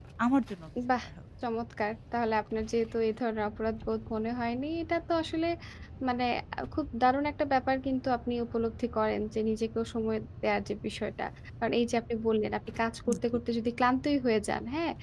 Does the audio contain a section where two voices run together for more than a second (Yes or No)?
No